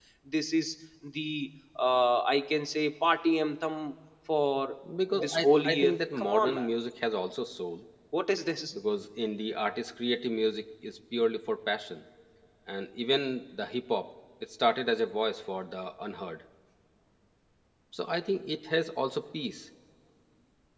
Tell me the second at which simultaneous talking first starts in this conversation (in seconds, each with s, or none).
5.2 s